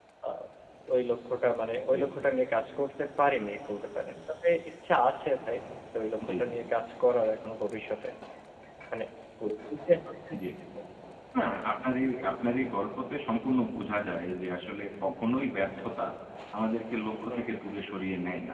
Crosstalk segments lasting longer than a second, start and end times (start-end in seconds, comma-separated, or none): none